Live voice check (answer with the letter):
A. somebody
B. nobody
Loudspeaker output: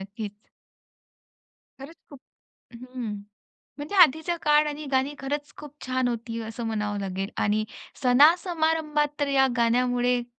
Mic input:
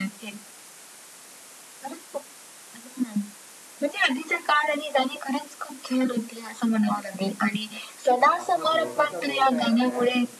A